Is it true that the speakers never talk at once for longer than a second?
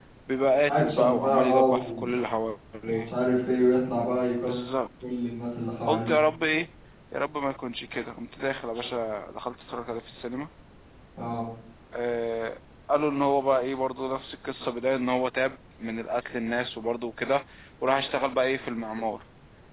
No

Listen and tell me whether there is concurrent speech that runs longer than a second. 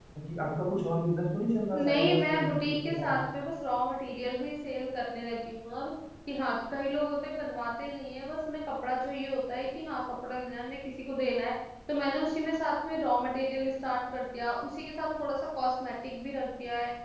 Yes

